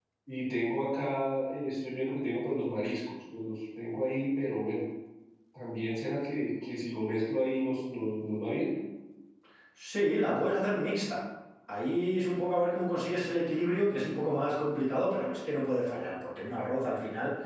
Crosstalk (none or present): none